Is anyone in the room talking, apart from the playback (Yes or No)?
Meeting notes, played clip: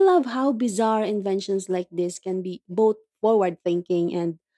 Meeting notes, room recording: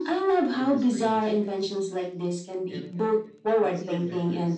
Yes